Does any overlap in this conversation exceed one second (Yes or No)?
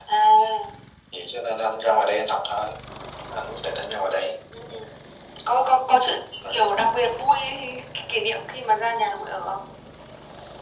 No